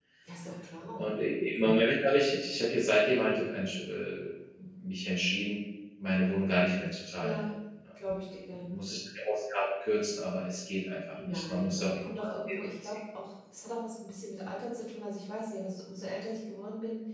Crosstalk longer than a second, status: present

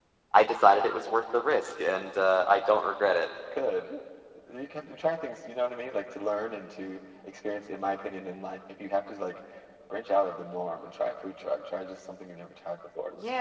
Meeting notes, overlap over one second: none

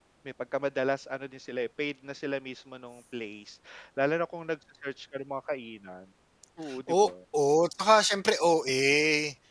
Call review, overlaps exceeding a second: none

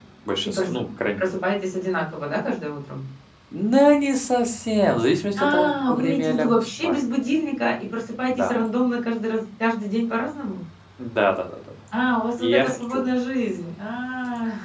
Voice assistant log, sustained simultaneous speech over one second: present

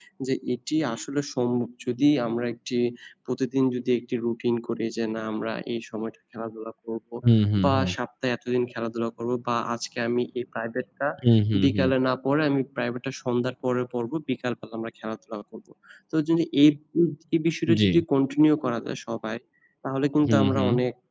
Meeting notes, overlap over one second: none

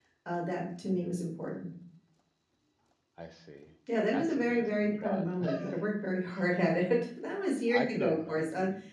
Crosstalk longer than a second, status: present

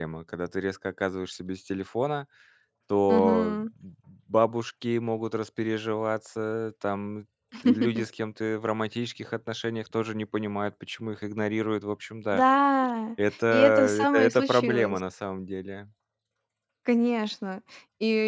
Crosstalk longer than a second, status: present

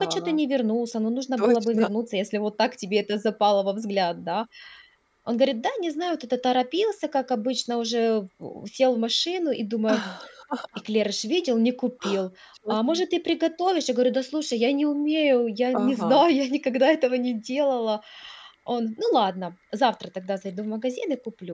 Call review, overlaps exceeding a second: none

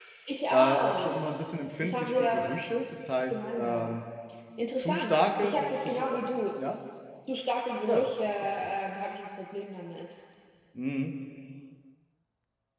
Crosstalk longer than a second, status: present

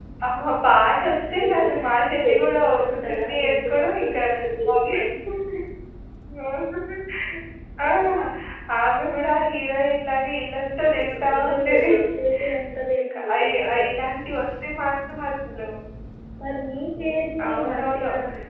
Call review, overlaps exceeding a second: present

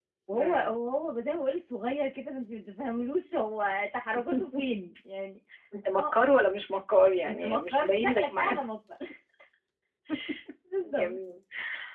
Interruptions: present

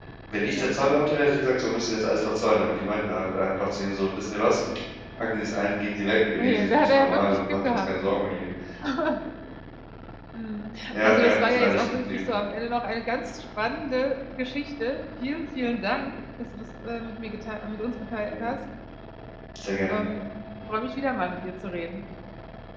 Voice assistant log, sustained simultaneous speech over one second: present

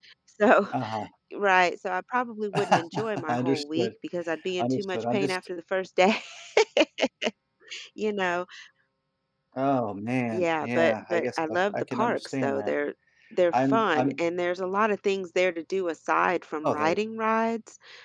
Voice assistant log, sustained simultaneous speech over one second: present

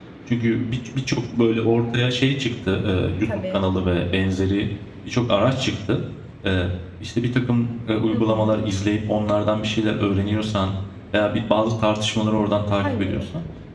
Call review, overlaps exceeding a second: none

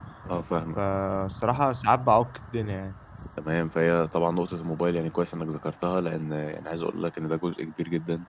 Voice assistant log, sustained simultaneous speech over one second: none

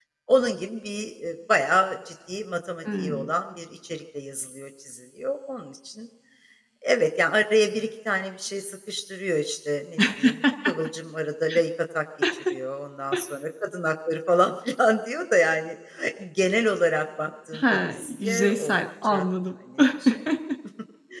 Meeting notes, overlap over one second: present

